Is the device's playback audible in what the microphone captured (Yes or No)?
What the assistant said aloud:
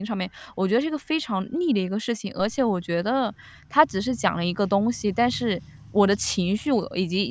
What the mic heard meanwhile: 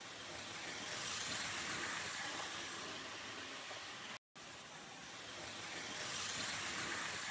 No